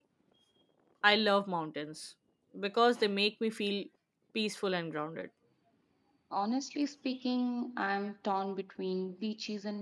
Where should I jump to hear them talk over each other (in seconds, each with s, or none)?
none